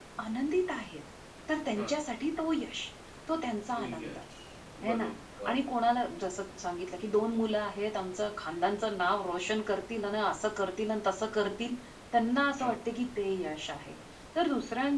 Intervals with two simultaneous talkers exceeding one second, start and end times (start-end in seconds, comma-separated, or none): none